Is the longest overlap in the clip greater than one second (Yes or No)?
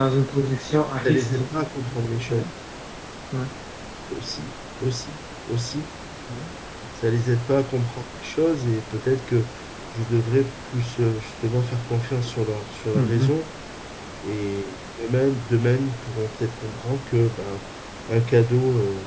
No